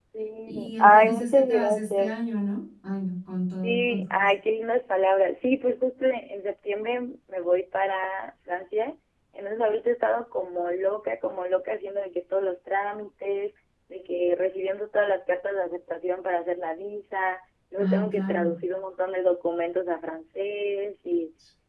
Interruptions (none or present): present